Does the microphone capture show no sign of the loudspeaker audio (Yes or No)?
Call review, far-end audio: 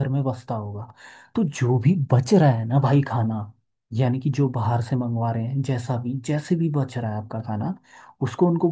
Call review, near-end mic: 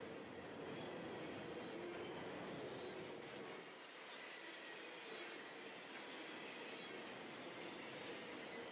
Yes